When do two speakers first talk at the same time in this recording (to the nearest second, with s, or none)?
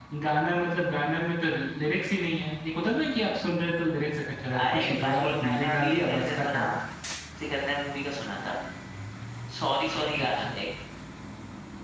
5 s